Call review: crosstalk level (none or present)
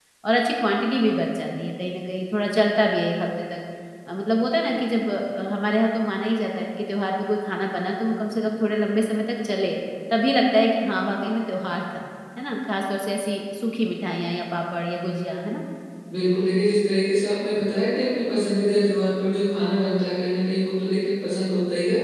none